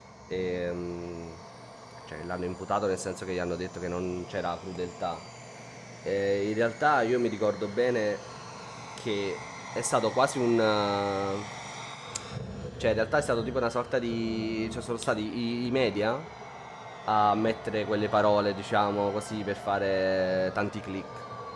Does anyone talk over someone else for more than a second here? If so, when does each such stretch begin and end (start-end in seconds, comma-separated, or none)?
none